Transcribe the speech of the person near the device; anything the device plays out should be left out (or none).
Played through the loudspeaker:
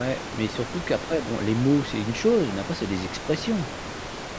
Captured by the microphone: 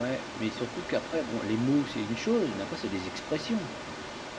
none